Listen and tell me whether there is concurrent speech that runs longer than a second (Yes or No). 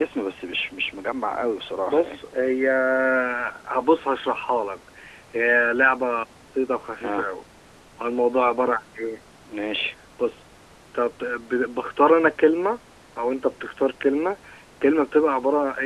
No